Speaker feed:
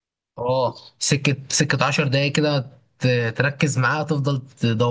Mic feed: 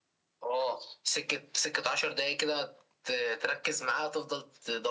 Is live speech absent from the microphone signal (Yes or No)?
Yes